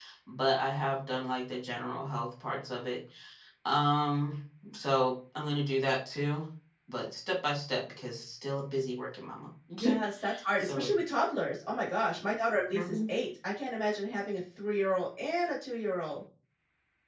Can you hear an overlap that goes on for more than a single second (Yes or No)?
No